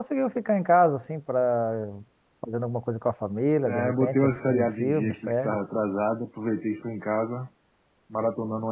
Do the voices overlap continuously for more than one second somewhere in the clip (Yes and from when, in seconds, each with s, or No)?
Yes, from 3.7 s